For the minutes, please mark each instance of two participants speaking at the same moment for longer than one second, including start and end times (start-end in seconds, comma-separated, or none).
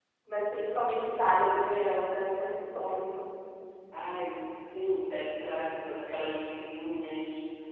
none